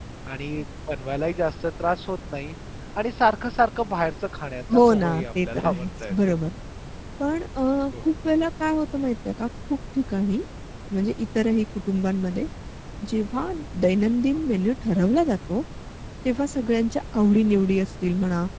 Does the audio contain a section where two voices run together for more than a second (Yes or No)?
Yes